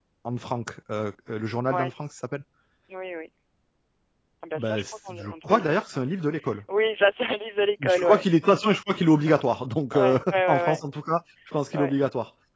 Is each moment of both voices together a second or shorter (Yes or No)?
No